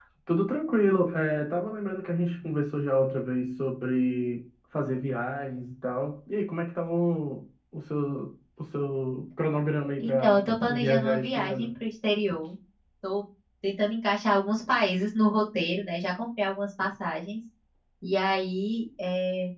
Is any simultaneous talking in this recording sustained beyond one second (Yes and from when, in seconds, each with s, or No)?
Yes, from 10.0 s